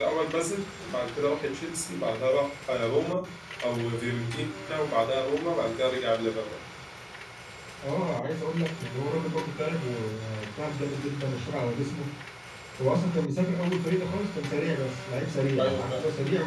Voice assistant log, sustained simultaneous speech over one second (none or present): none